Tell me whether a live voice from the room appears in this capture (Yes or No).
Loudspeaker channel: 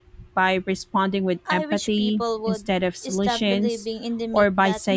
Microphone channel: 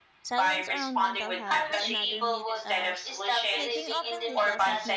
Yes